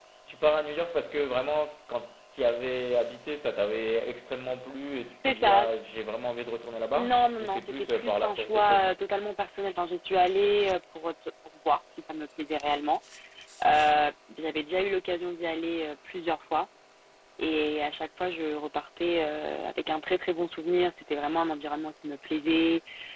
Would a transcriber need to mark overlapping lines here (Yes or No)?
Yes